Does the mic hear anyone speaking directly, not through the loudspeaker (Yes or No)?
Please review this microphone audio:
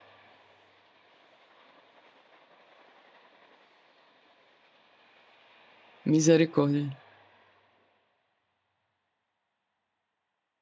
Yes